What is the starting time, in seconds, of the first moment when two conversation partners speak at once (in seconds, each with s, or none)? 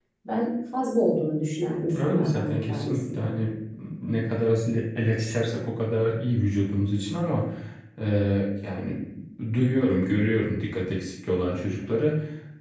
1.9 s